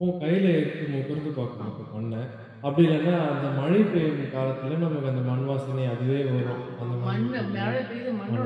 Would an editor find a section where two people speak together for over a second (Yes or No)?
Yes